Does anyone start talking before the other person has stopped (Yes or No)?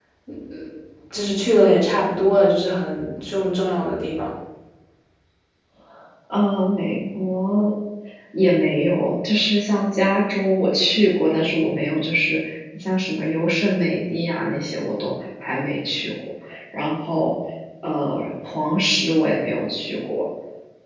No